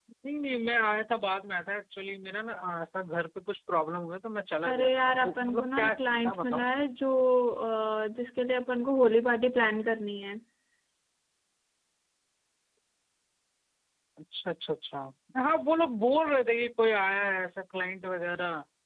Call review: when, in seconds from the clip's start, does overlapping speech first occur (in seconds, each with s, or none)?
4.6 s